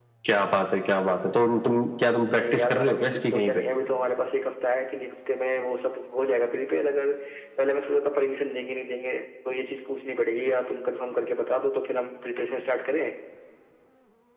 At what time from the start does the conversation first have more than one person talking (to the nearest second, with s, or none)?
2 s